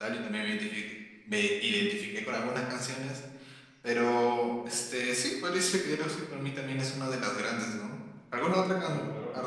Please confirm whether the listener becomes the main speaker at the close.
No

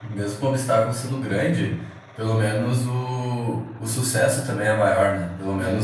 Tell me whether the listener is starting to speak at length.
No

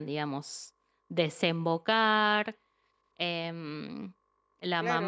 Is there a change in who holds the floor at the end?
Yes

